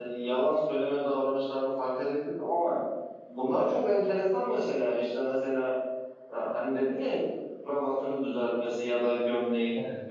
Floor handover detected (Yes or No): No